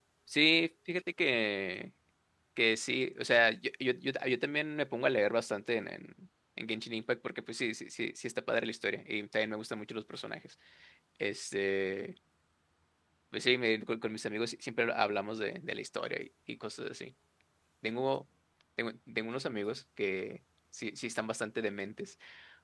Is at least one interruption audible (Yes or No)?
No